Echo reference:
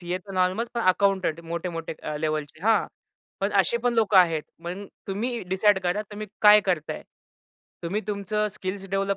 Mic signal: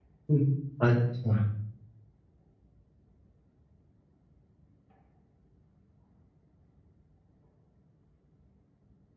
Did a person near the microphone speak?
Yes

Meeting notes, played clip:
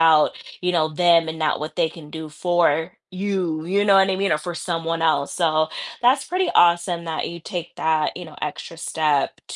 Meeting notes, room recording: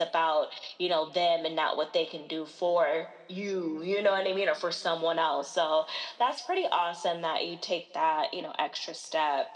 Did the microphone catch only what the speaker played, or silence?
Yes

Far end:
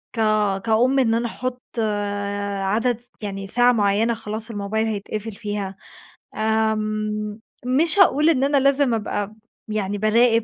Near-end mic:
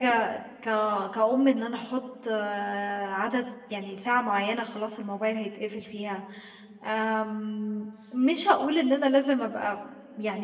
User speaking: No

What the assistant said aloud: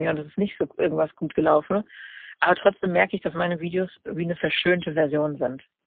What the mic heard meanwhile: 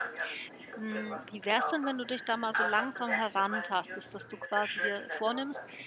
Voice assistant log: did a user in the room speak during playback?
Yes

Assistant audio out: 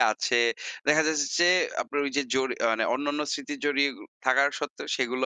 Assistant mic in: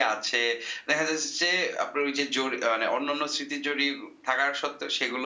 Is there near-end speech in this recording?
No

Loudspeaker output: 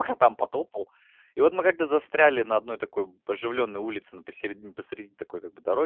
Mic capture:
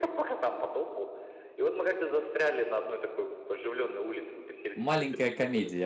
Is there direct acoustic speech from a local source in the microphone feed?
Yes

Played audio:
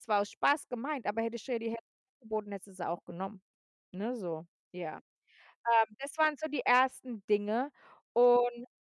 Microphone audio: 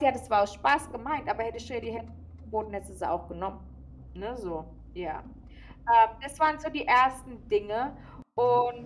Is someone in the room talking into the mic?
No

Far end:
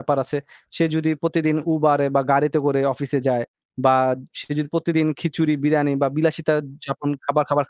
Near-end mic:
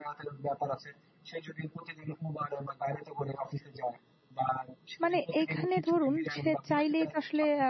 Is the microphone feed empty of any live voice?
No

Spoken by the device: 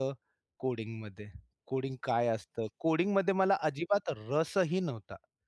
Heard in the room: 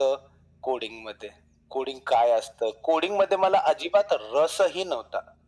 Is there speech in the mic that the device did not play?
No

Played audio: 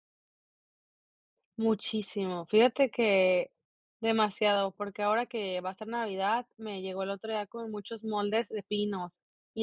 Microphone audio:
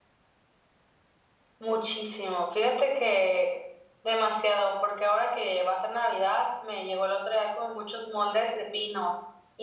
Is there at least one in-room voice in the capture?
No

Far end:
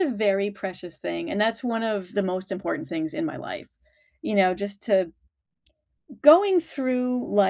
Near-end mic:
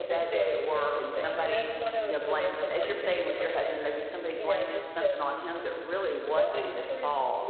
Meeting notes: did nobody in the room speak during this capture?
No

